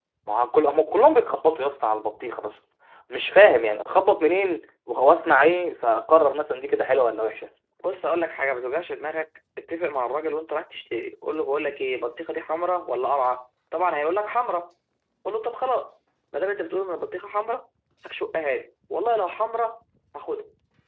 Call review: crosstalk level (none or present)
none